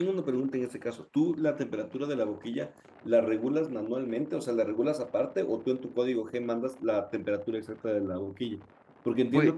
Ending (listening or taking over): listening